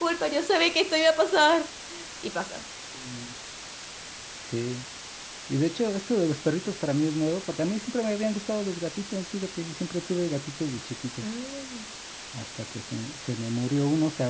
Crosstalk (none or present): none